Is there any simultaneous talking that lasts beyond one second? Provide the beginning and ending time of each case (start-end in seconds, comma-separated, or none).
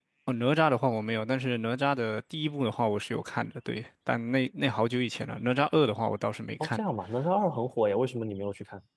none